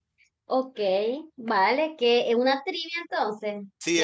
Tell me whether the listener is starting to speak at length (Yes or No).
Yes